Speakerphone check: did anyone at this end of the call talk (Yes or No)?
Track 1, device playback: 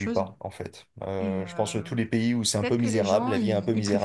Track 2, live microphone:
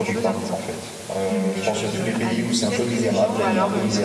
Yes